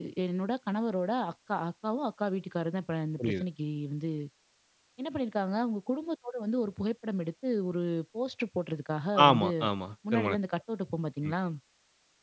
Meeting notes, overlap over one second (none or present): none